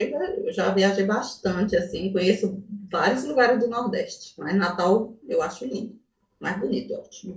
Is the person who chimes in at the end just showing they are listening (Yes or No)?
No